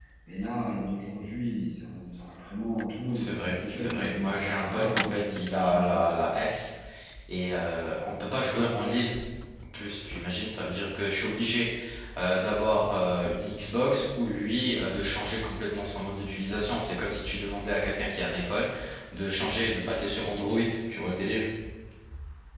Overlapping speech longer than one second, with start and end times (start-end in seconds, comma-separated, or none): 3.1-6.1